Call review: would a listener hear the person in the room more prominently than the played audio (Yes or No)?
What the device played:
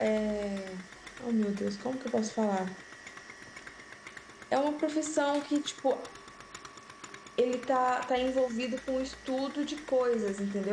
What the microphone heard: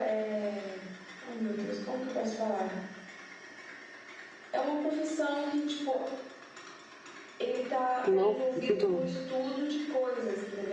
Yes